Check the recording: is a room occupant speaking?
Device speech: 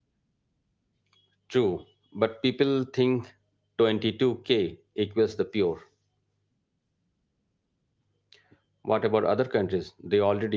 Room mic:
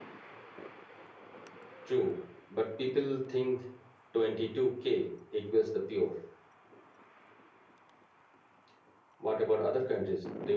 No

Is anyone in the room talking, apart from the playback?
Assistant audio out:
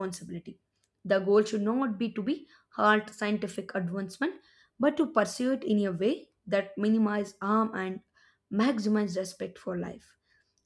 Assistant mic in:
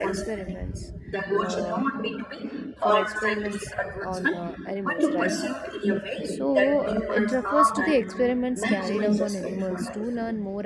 Yes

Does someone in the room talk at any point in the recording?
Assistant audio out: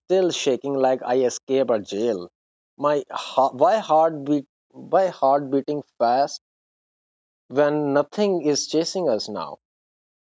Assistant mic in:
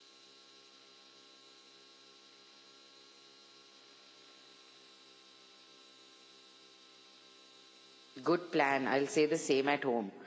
Yes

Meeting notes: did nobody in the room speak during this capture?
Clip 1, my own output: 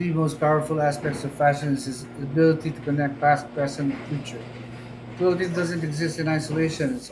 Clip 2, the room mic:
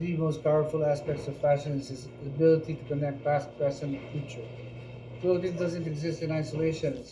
Yes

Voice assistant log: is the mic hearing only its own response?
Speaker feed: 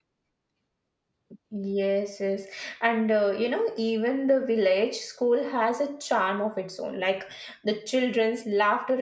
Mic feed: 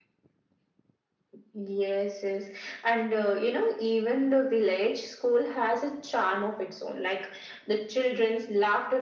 Yes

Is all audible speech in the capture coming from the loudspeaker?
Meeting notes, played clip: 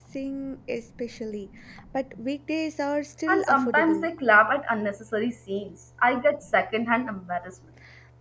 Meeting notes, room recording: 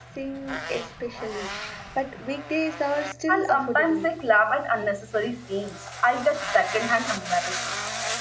Yes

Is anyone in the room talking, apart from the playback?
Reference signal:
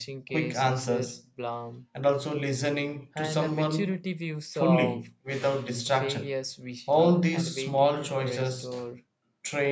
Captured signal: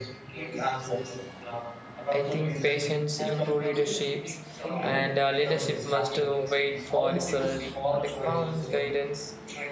Yes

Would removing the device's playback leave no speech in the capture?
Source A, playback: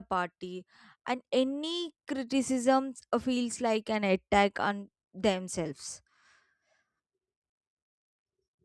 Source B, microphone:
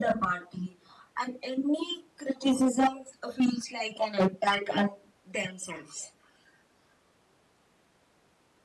Yes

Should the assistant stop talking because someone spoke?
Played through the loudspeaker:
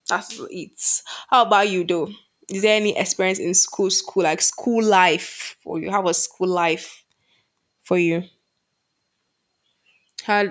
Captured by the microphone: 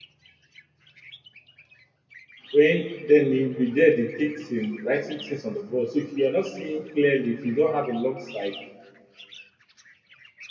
Yes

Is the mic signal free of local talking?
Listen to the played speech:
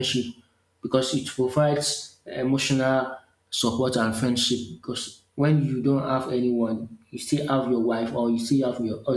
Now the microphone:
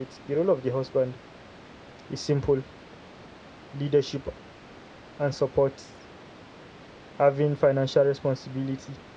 No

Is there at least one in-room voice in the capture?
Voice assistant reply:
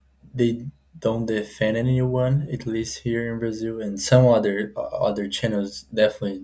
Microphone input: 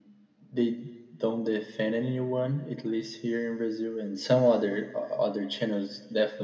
No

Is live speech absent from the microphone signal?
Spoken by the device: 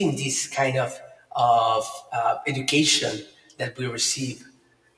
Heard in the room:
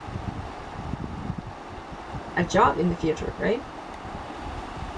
No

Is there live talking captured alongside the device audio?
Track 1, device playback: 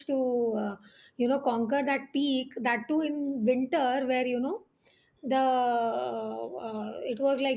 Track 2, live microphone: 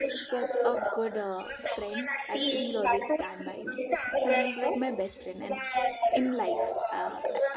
Yes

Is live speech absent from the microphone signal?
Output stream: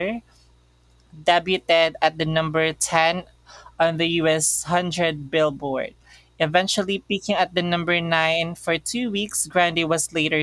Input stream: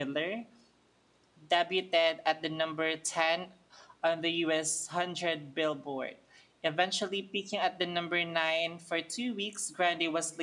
Yes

